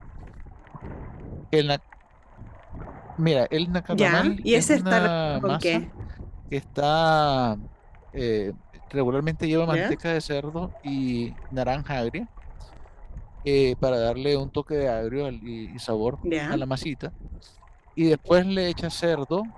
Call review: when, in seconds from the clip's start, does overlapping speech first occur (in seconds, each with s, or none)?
3.9 s